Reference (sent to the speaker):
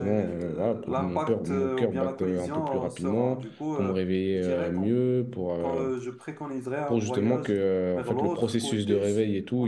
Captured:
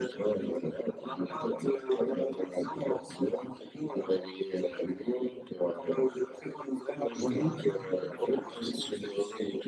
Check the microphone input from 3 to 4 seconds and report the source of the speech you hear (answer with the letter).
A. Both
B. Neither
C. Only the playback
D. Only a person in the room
C